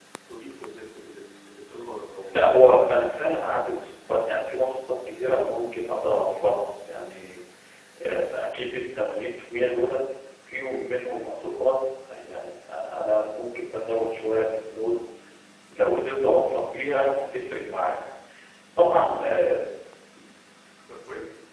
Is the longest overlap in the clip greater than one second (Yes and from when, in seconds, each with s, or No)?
No